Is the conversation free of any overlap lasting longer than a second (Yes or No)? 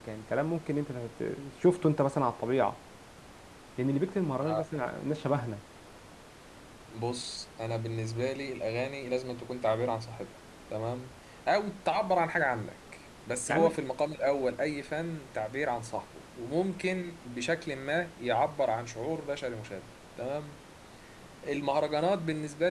Yes